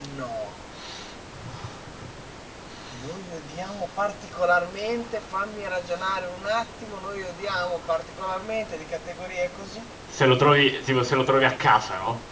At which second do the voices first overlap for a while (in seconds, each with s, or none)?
none